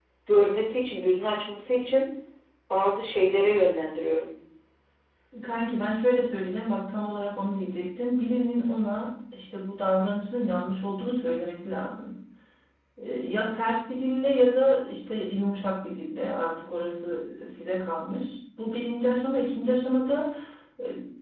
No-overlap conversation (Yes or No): Yes